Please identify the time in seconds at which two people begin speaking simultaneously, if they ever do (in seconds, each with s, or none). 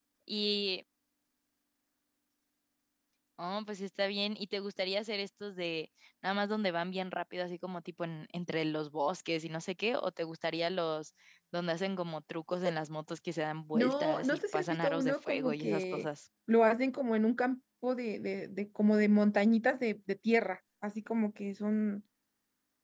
13.7 s